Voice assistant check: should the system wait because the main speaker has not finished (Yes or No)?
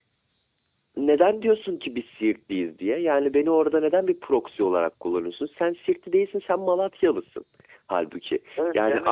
No